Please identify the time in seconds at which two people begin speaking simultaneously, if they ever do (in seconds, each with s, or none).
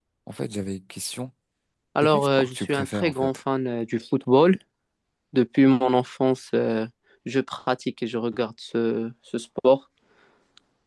2.0 s